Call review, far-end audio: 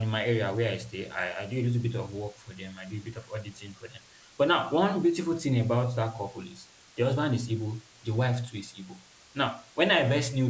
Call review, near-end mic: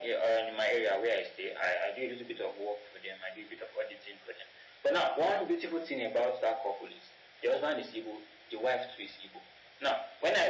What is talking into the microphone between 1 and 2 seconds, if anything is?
echo only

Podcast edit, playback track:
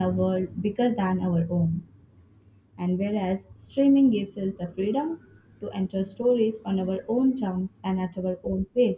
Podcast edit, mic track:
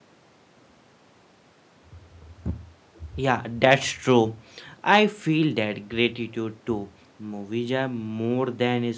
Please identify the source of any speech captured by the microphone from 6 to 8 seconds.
user only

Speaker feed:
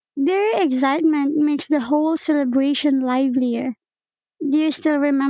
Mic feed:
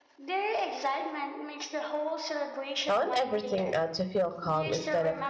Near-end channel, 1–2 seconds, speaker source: echo only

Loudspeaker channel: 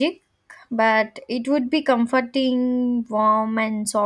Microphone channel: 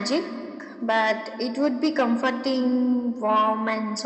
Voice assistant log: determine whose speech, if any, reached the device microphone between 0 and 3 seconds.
echo only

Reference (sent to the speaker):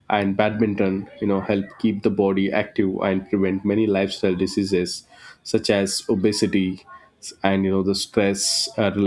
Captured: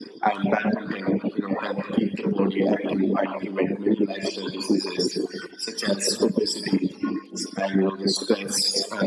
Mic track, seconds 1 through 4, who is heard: echo only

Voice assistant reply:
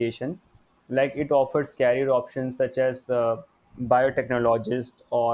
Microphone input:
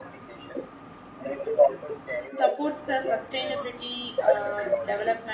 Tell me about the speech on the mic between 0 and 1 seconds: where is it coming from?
echo only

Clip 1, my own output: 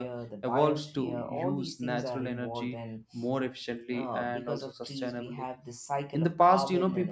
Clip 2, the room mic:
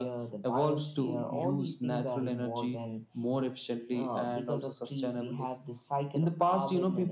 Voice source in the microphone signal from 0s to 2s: echo only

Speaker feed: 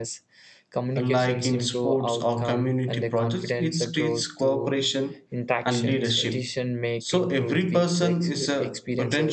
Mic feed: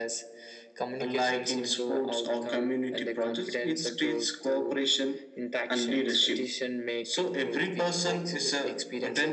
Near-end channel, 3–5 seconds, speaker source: echo only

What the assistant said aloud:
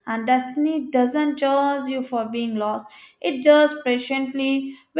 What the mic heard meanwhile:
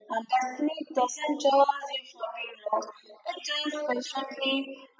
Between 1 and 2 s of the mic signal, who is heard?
echo only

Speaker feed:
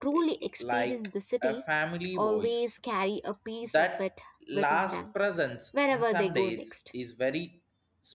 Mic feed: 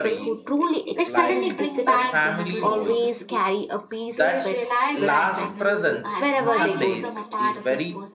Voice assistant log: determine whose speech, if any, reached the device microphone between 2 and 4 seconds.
both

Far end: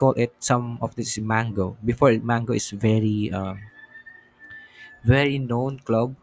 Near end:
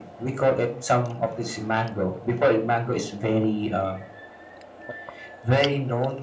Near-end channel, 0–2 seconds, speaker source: echo only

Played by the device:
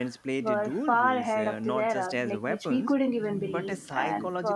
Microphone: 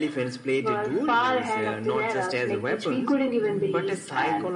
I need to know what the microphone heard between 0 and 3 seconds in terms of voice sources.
echo only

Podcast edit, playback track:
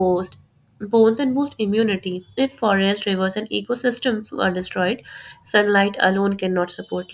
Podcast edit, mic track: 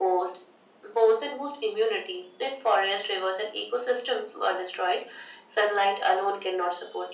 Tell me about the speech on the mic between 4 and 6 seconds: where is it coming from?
echo only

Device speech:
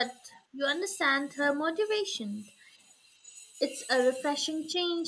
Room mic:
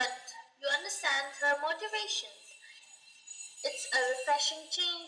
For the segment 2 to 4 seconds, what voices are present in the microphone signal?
echo only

